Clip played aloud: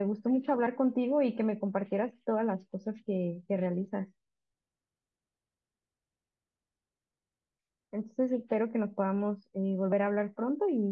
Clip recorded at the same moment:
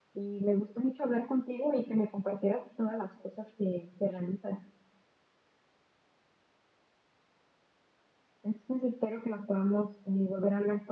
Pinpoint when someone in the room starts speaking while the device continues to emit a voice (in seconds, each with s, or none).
none